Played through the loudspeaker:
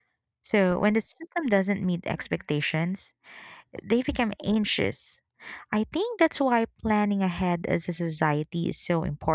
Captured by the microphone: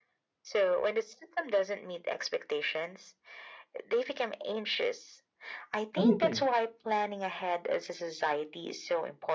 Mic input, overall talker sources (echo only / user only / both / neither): both